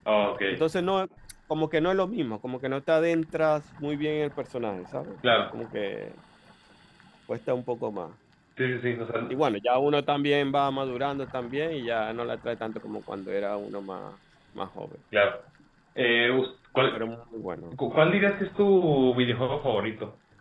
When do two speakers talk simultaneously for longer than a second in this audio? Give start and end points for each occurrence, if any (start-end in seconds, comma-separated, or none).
none